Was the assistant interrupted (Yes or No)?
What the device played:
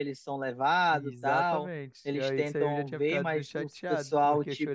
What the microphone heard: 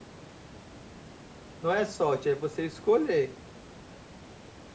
Yes